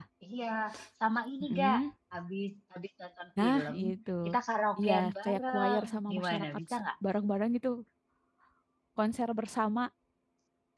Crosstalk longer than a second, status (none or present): present